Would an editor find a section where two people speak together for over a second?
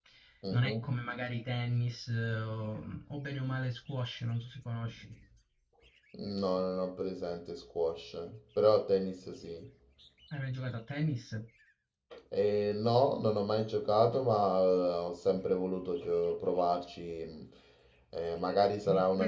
No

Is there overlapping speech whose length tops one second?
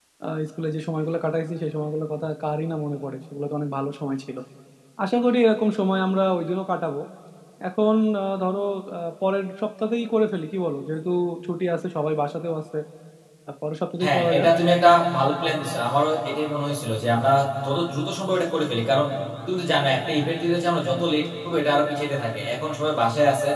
No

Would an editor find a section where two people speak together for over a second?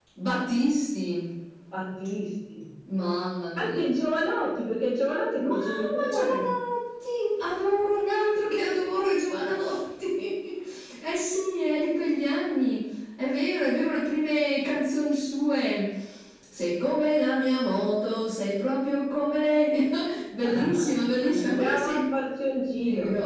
Yes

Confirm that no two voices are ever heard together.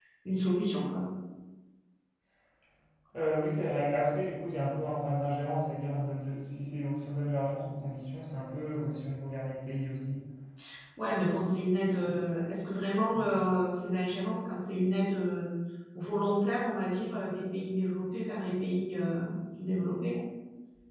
Yes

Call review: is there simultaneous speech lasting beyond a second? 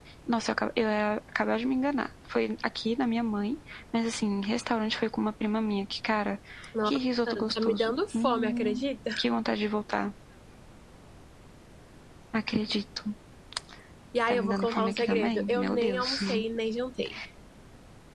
Yes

